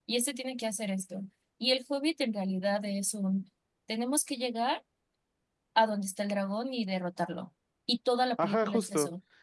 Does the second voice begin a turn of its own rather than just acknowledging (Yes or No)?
Yes